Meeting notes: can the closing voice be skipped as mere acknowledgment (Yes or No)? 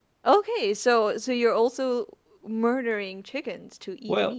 No